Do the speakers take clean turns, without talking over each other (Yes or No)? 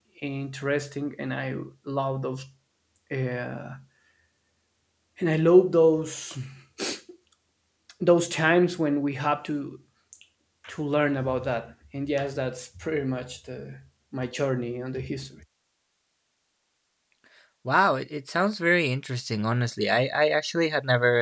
Yes